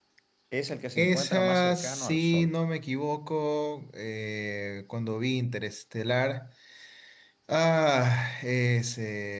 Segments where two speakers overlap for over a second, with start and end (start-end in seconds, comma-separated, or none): 1.0-2.5